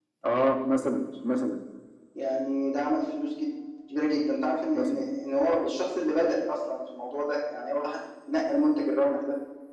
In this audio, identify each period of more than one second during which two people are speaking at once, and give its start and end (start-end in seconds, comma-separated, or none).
none